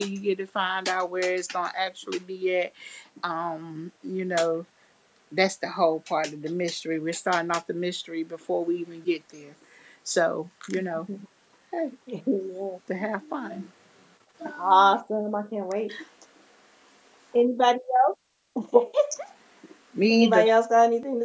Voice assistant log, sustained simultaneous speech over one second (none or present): none